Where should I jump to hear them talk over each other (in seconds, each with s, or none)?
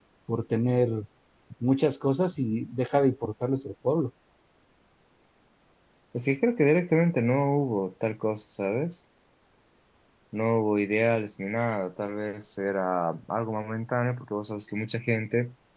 none